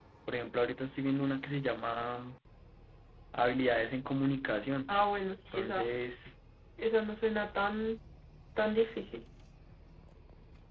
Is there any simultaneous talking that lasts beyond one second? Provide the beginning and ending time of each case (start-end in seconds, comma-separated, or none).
none